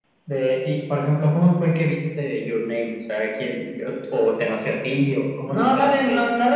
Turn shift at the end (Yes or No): Yes